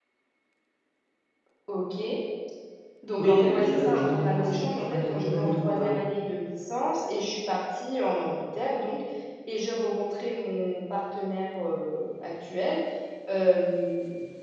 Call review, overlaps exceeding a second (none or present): present